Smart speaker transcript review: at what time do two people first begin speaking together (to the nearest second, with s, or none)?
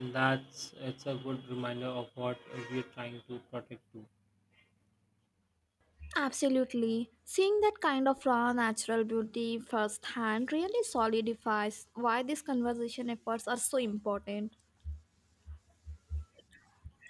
none